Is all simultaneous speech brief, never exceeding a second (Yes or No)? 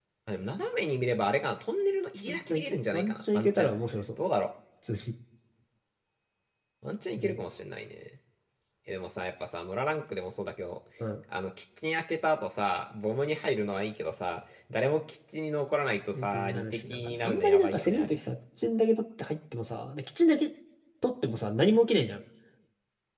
No